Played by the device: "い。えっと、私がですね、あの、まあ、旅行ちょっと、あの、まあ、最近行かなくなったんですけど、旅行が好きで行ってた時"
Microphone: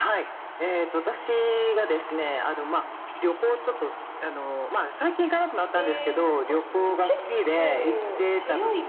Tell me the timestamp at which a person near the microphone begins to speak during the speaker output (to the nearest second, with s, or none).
6 s